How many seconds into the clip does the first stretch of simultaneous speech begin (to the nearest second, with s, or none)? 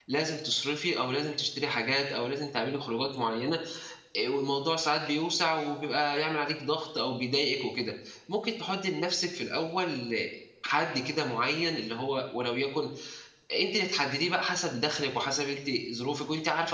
none